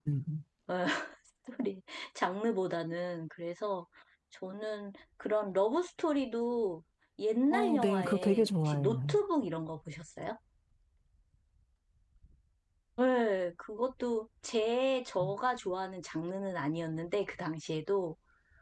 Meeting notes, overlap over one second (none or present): present